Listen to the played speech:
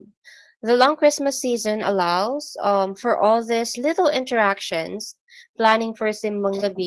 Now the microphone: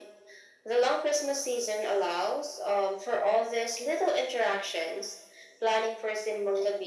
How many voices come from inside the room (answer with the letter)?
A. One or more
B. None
B